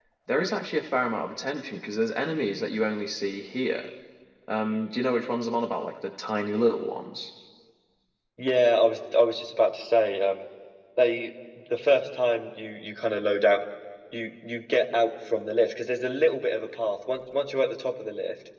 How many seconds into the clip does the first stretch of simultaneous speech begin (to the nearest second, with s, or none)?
none